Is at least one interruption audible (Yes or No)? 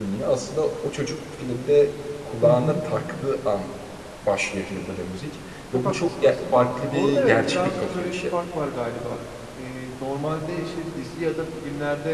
Yes